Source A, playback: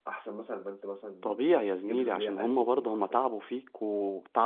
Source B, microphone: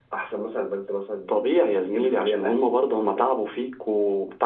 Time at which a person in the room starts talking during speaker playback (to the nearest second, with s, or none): none